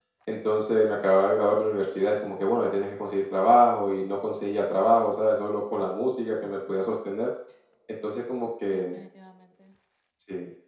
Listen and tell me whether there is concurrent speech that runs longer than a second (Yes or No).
No